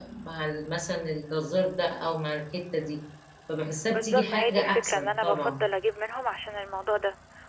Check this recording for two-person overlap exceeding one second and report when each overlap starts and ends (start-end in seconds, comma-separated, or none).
3.9-5.6